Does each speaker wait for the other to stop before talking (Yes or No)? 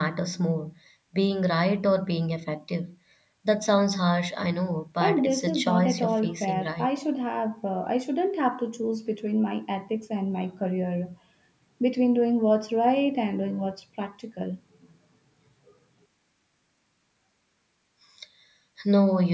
No